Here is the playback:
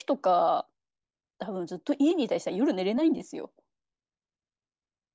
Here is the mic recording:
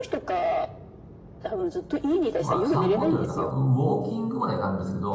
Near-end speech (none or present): present